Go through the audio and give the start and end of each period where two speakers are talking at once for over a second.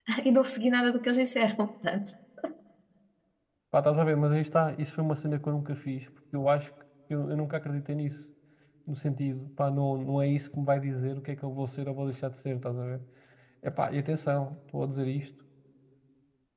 none

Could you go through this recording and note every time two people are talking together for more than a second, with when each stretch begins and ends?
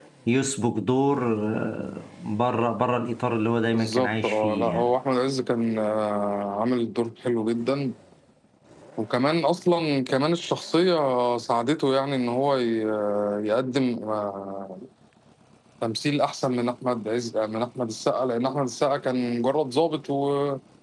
3.7-4.9

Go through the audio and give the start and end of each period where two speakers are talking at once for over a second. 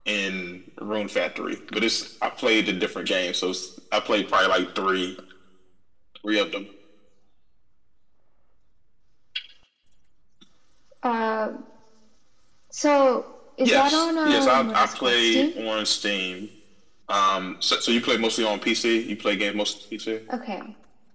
13.6-15.4

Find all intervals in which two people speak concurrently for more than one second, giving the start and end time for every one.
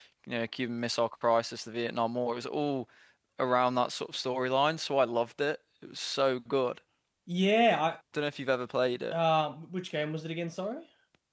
none

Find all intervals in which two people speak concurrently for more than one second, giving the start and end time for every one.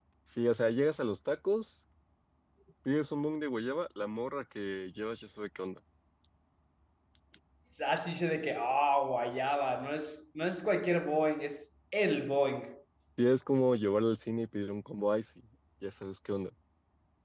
none

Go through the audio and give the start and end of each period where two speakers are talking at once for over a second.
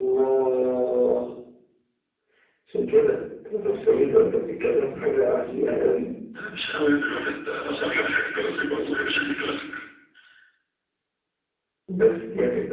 none

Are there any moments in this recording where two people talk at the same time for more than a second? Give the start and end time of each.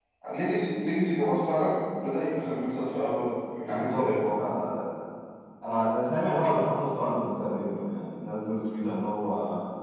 none

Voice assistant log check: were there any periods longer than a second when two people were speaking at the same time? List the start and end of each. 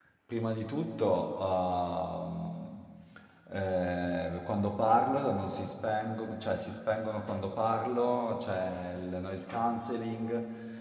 none

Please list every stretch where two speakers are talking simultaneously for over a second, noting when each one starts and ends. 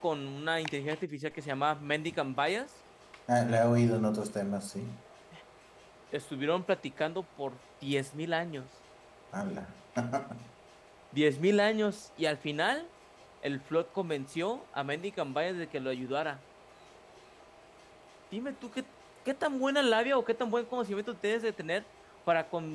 none

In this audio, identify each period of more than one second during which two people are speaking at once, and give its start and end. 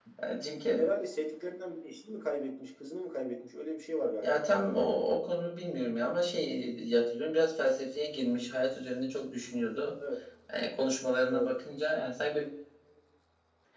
none

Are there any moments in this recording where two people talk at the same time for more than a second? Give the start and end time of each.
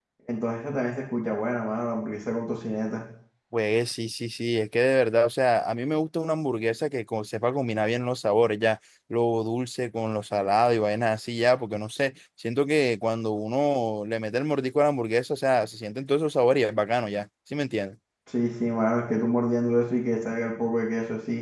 none

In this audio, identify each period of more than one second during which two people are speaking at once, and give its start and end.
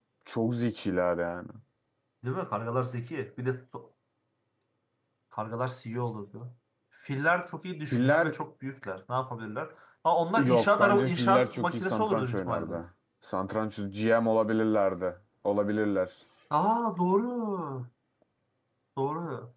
10.4-12.7

